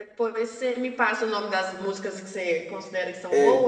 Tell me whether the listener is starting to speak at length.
Yes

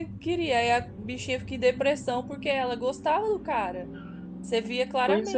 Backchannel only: Yes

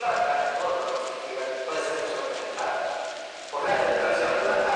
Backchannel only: No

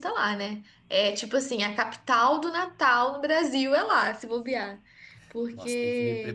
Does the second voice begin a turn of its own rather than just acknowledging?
Yes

